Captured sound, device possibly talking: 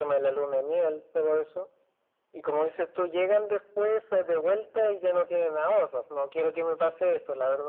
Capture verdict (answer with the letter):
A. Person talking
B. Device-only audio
B